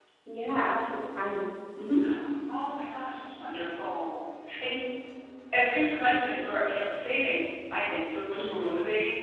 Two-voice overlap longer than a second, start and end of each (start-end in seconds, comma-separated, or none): none